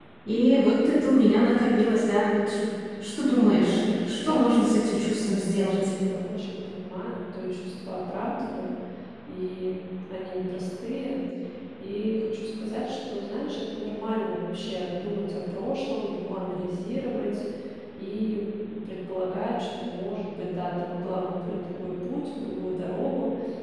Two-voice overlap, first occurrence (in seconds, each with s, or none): 3.2 s